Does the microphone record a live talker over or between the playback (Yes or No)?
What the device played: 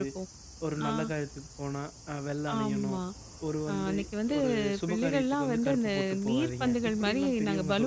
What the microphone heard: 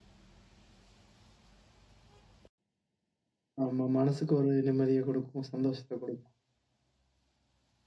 Yes